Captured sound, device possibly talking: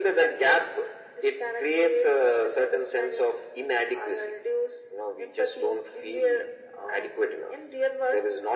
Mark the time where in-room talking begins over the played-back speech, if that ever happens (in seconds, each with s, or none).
none